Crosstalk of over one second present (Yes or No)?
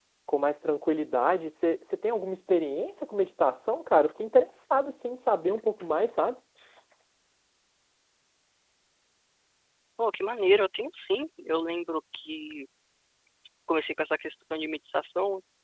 No